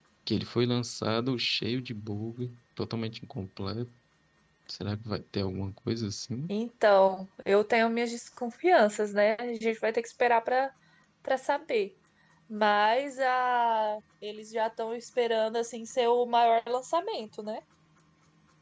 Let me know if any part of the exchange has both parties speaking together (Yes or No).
No